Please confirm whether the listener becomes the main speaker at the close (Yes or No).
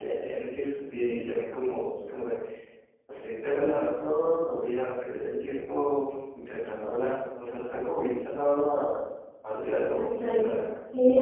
Yes